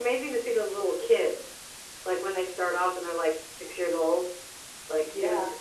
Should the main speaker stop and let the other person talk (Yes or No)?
No